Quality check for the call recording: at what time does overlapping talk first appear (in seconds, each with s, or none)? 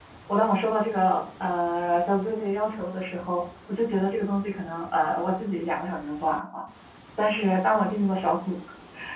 none